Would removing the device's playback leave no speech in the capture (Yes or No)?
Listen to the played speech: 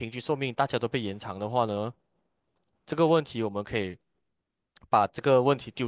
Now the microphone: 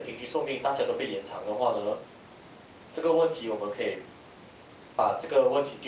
Yes